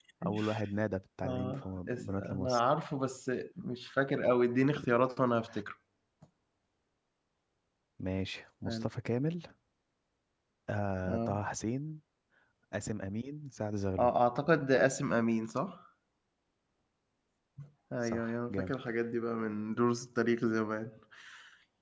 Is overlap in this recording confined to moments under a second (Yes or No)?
No